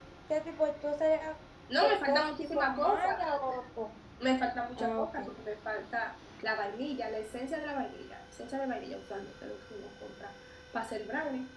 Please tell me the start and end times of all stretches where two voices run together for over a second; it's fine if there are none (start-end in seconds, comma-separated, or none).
1.8-3.2